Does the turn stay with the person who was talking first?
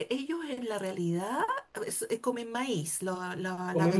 No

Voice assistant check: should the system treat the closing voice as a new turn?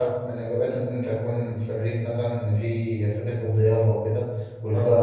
No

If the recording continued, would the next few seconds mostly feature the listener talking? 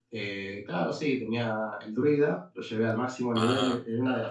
No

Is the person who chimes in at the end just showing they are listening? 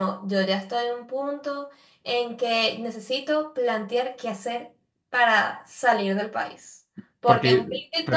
No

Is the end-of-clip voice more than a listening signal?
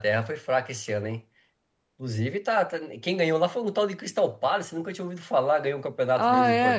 Yes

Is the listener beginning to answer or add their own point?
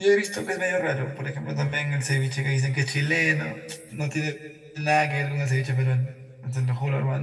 No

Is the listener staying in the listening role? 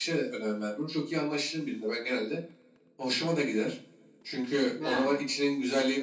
Yes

